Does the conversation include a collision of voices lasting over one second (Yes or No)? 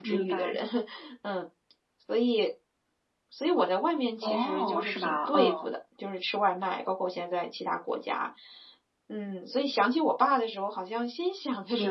Yes